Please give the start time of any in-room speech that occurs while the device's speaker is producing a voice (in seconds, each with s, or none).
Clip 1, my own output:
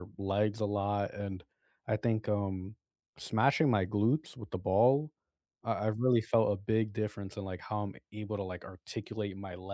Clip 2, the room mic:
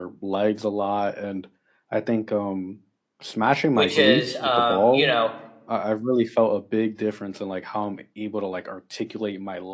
3.7 s